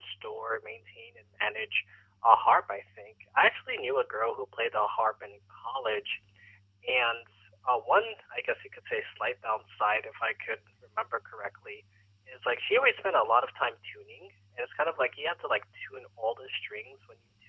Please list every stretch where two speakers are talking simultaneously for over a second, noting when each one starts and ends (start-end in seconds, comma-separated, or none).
none